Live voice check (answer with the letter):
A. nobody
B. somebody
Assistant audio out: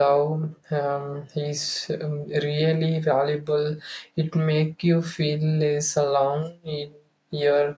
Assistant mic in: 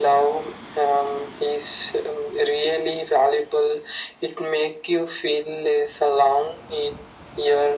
A